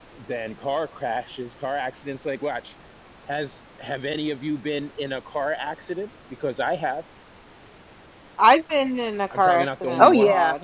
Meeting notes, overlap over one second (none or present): present